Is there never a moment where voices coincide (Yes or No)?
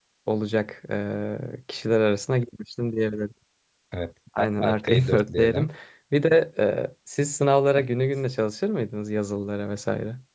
No